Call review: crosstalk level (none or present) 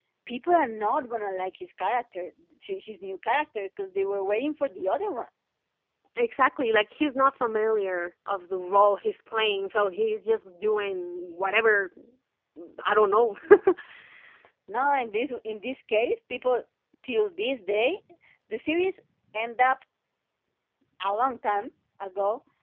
none